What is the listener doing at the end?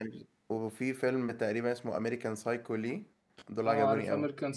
taking over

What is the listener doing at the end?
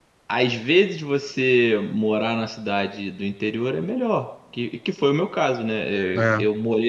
listening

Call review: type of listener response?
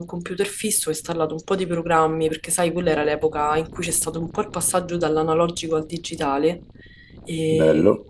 listening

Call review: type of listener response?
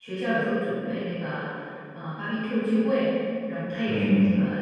listening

